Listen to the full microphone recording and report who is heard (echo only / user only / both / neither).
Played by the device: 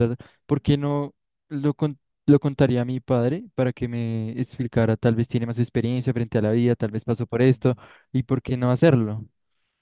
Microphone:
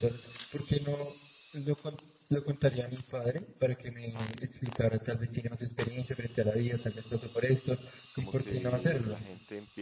both